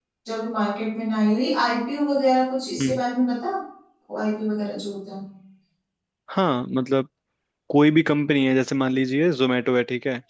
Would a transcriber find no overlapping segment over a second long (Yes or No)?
Yes